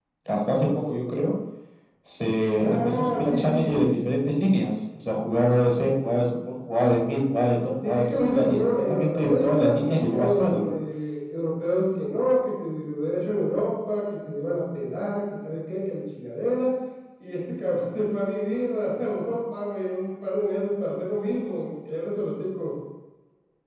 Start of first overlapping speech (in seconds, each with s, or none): 2.6 s